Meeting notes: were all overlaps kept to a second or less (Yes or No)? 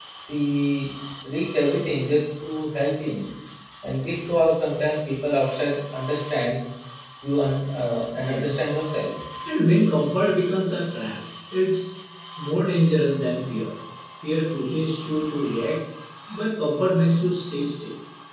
Yes